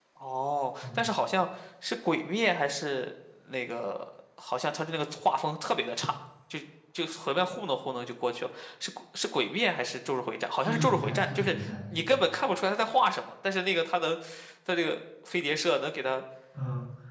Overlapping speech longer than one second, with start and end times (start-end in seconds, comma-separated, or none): 10.6-12.1